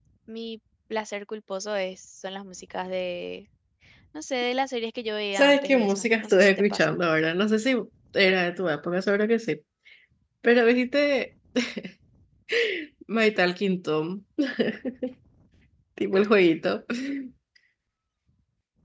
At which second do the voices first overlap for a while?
5.3 s

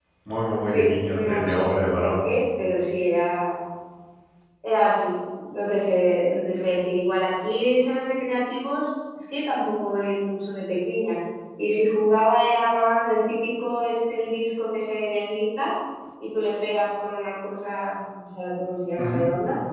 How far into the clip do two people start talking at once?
0.6 s

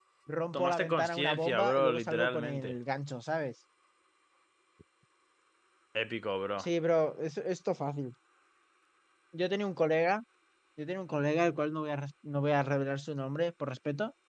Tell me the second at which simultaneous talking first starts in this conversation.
0.5 s

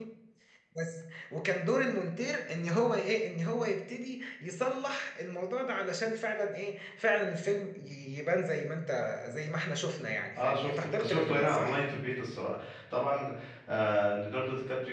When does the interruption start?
10.3 s

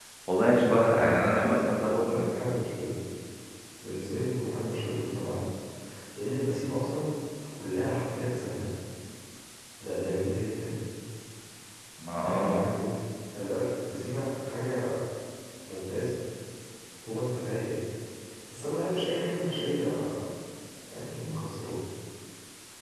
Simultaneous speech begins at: 0.6 s

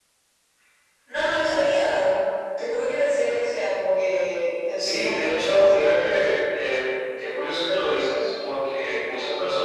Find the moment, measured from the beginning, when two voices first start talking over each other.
4.8 s

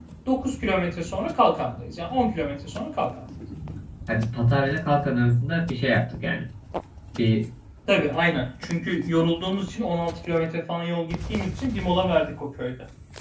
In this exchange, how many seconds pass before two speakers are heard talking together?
none

